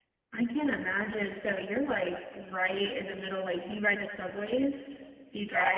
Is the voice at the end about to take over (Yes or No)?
Yes